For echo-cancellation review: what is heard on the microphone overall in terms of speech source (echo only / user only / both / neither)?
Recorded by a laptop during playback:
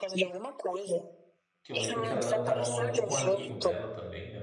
both